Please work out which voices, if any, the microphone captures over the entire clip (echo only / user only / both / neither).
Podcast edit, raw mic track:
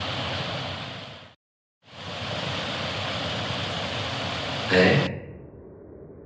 user only